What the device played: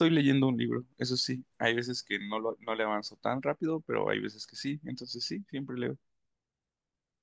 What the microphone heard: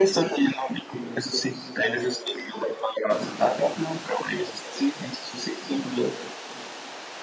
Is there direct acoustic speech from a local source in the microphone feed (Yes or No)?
No